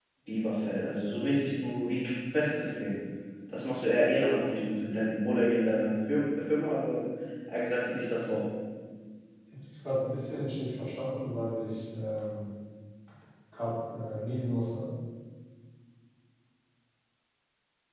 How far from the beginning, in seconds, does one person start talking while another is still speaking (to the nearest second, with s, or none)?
none